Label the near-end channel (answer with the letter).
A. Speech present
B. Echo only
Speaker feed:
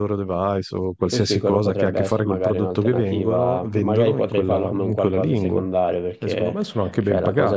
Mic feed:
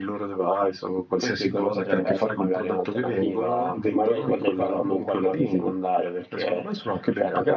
B